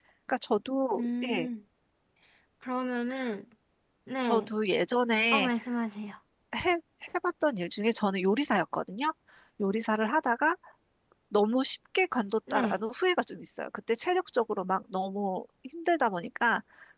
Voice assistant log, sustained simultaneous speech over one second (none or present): none